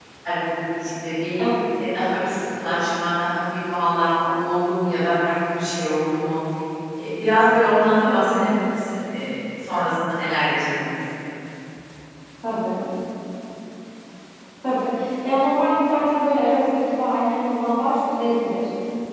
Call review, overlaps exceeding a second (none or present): none